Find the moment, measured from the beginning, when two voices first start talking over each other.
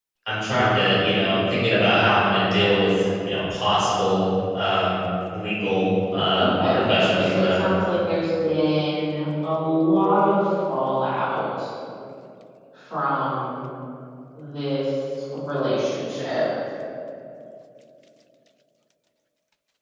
6.4 s

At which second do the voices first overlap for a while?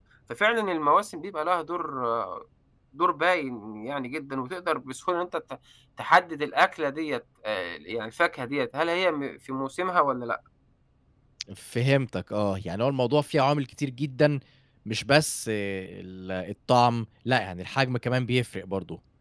none

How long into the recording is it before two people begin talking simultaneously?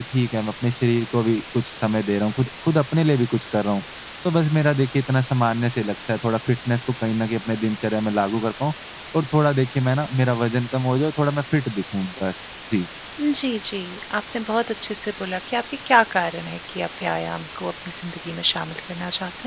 none

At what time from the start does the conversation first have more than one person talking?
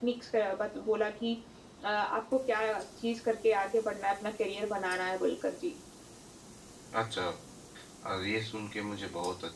none

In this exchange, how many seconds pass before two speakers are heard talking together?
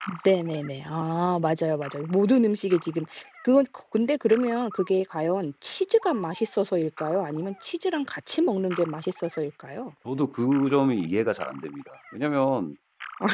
none

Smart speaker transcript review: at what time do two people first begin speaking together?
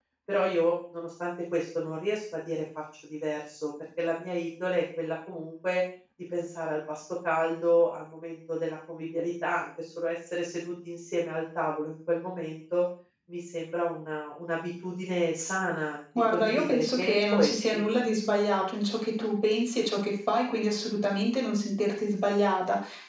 16.1 s

